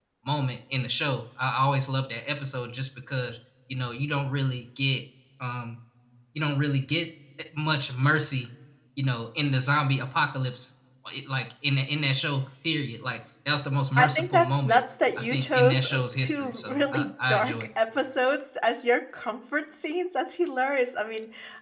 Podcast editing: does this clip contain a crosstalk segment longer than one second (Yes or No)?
Yes